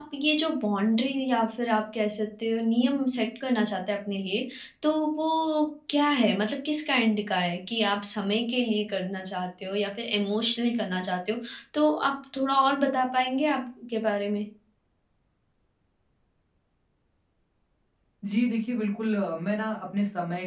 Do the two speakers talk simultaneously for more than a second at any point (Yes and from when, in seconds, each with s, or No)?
No